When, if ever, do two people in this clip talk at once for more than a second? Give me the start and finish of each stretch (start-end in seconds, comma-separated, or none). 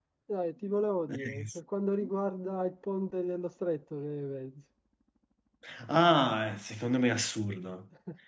none